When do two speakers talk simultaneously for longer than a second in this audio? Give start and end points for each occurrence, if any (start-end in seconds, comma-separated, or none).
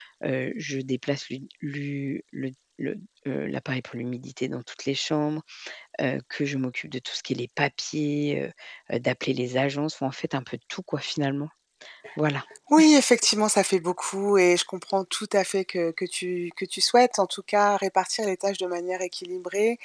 none